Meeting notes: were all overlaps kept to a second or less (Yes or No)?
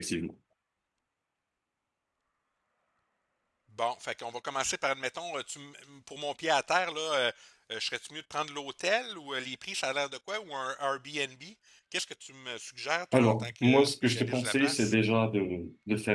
No